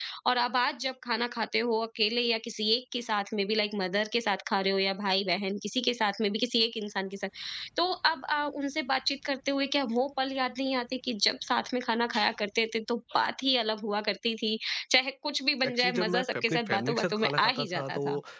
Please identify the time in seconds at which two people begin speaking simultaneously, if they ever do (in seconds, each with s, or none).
15.6 s